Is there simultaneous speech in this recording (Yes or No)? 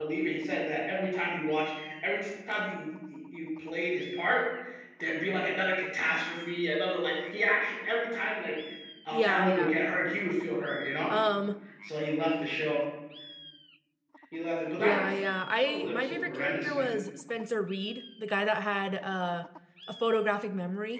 Yes